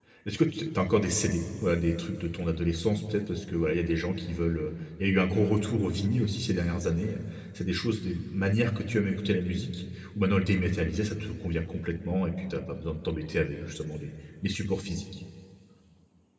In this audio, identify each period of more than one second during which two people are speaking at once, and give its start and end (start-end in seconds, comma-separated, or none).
none